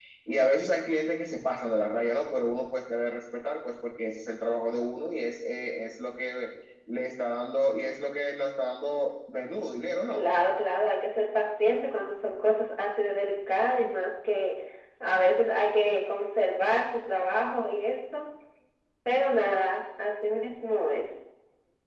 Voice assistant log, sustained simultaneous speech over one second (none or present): none